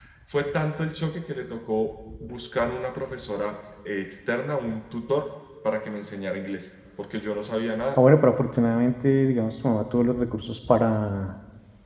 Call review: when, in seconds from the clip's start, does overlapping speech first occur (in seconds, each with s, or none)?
none